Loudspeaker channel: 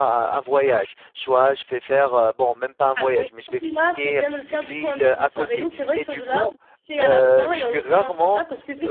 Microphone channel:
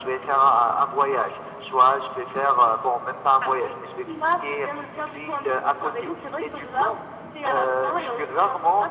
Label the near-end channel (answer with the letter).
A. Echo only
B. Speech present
A